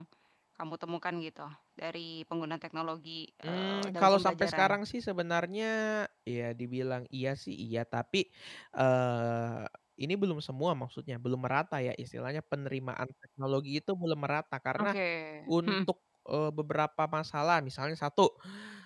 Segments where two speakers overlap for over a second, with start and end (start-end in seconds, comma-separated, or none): 3.4-4.7